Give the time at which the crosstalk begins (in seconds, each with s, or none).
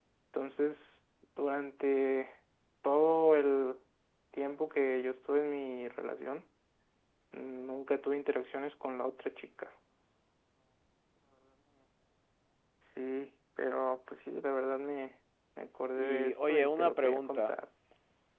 16.0 s